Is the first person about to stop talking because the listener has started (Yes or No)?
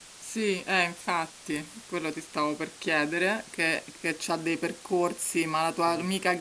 No